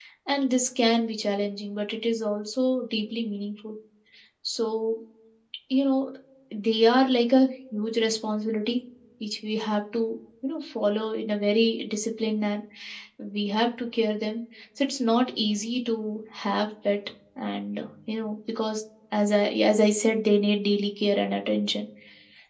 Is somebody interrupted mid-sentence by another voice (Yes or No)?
No